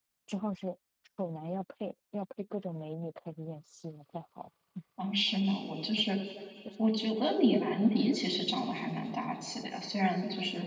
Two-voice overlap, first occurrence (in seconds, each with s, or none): none